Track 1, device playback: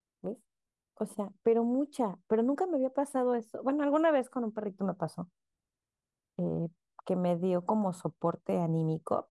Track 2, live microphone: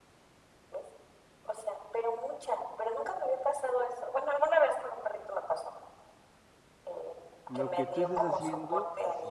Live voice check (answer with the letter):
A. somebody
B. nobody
A